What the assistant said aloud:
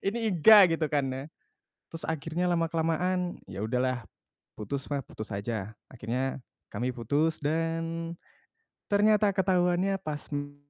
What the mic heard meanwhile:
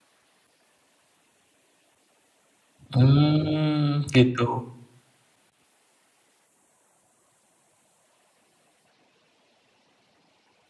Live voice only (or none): Hmm, gitu.